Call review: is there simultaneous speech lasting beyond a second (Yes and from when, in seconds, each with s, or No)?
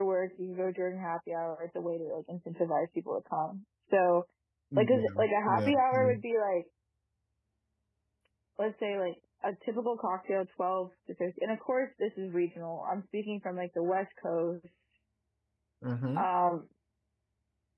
Yes, from 4.8 s